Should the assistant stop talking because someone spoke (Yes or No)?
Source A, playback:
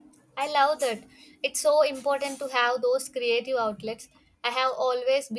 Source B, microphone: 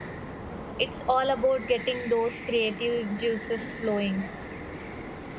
Yes